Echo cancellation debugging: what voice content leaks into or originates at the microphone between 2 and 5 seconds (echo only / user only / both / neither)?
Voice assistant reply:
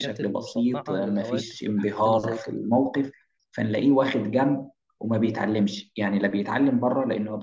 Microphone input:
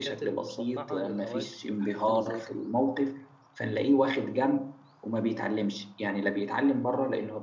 echo only